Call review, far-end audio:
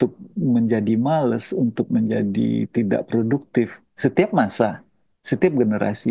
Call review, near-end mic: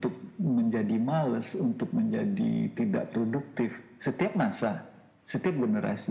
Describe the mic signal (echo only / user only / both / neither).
echo only